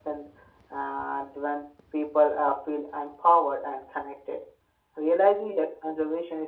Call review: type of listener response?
listening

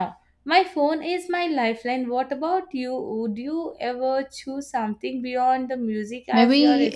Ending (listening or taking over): taking over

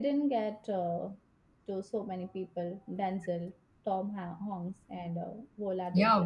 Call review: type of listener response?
taking over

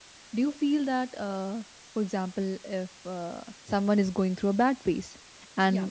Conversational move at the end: listening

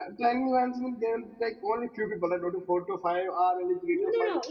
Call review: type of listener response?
taking over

